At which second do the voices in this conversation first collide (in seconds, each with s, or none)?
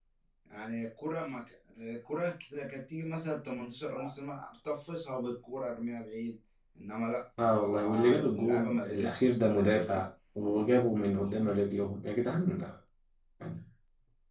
7.4 s